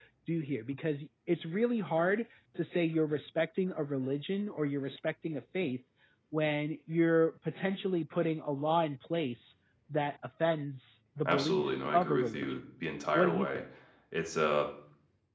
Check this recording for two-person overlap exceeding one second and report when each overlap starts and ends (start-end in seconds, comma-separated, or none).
11.2-12.5